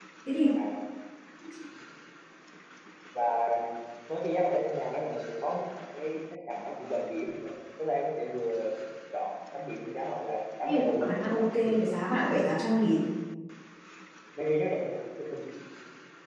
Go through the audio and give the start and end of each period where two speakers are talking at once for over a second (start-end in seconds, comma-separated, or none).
10.6-12.0